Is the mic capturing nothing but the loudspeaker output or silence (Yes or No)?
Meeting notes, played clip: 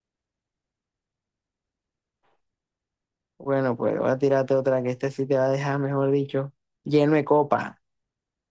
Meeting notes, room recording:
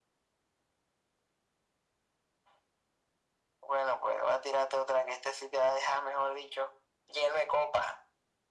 Yes